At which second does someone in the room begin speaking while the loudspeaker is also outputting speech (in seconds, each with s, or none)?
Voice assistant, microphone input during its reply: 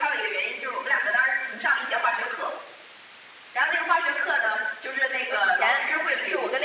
5.3 s